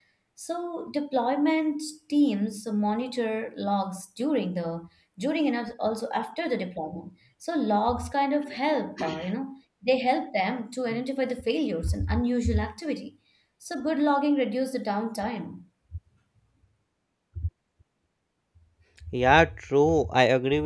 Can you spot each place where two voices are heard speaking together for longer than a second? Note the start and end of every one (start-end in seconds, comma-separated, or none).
none